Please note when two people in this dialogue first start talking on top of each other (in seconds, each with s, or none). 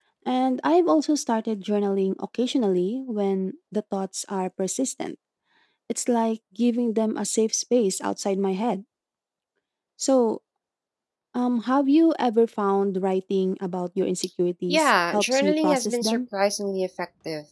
14.7 s